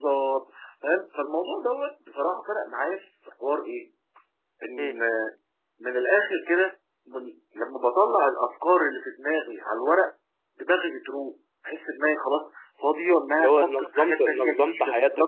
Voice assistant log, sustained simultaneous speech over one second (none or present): present